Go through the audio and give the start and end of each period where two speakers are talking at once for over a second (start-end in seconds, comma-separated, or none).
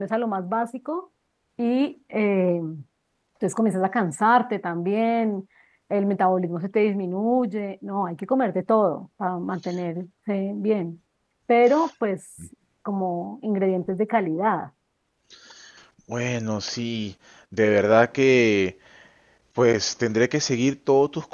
none